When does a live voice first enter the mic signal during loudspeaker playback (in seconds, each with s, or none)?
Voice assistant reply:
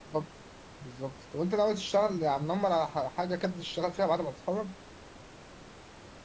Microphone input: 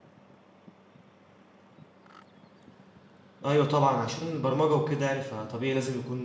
3.5 s